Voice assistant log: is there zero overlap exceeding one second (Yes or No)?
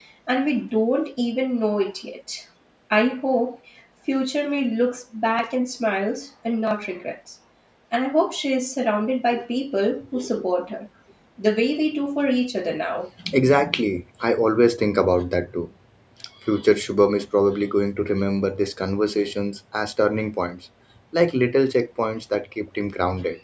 Yes